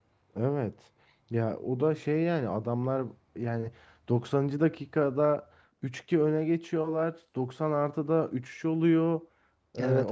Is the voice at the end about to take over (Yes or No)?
No